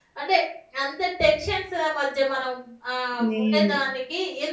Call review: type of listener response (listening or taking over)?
listening